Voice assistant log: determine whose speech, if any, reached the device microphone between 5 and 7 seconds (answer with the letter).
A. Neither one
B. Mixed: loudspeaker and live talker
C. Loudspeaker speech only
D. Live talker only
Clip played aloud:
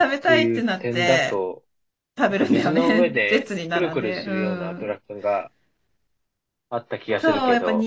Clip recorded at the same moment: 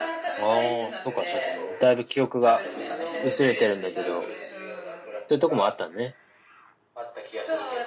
B